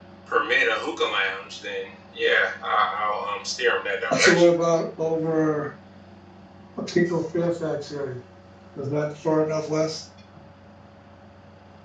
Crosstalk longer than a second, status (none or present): none